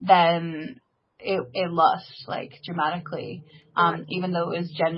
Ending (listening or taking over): listening